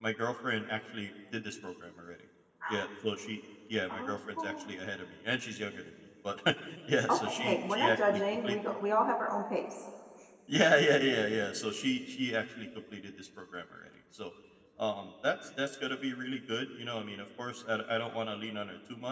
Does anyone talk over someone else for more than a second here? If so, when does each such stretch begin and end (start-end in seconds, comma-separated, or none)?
7.1-8.6